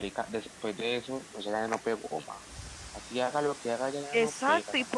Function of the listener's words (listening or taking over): taking over